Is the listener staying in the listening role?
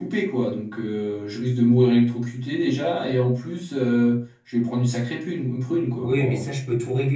No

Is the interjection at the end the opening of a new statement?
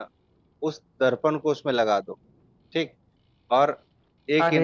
Yes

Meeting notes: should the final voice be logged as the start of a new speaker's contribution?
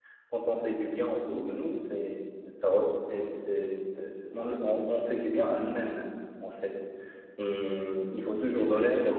No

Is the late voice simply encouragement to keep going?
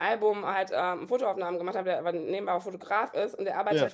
Yes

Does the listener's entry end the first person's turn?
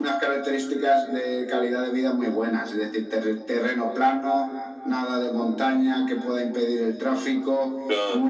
No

